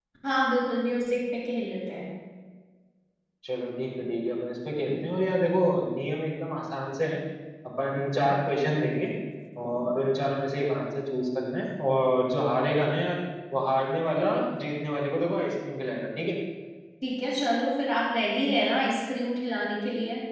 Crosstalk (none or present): none